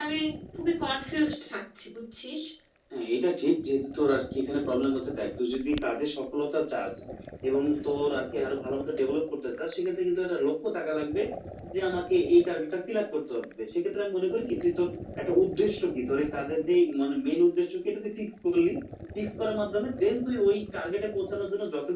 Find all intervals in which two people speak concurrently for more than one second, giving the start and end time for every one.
none

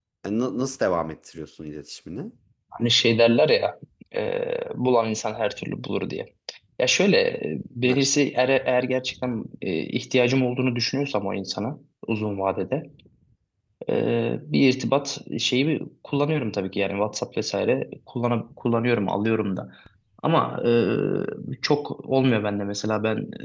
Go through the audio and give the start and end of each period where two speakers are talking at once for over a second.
none

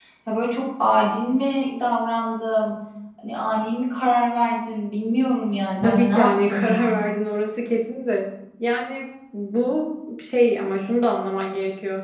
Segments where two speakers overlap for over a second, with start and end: 5.8-7.0

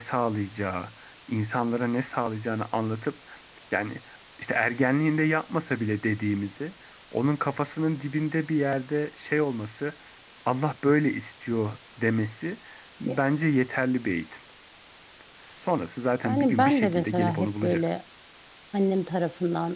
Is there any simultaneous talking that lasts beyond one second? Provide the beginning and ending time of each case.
16.2-17.9

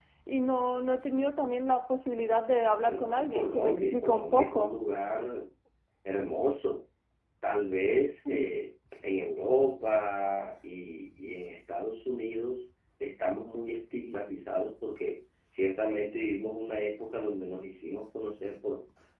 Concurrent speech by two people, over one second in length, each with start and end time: 2.9-4.7

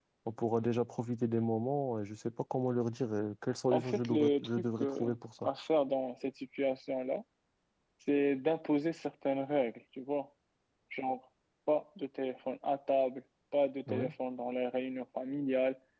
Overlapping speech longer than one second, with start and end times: 3.7-5.1

